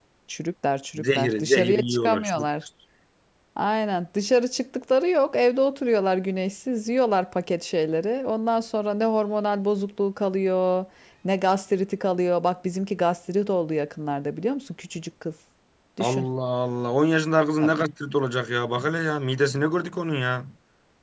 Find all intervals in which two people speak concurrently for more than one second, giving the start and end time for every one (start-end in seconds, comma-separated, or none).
1.0-2.5